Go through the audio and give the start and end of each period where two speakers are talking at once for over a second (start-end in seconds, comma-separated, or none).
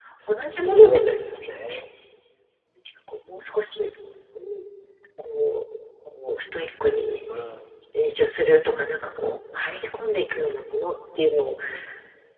0.5-1.8